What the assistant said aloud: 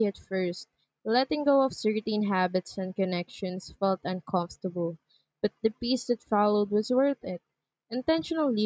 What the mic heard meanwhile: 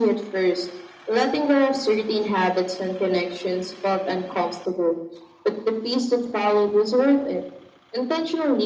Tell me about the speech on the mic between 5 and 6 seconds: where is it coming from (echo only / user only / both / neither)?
echo only